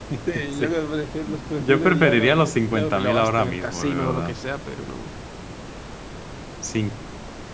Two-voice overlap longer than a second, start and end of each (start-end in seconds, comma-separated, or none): 1.6-4.4